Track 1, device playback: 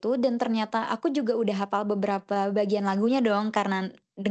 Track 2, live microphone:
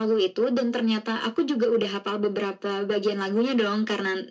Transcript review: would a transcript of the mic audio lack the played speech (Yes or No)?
No